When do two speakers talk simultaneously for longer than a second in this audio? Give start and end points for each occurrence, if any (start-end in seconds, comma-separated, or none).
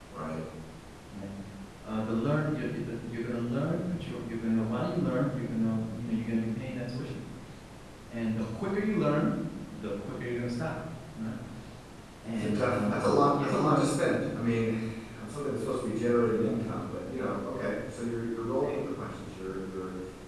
12.3-13.9